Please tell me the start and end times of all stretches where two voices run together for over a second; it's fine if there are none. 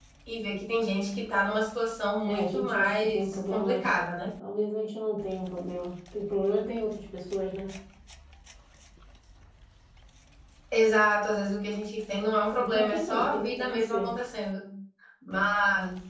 2.3-3.9, 12.6-14.1

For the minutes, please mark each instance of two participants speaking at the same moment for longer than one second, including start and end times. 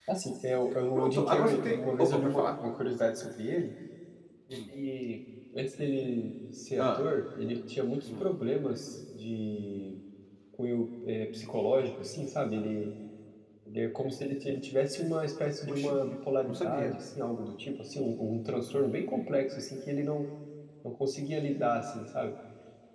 0.9-2.5

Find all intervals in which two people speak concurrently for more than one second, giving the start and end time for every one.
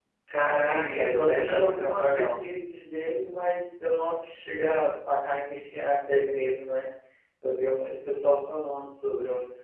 0.6-2.3

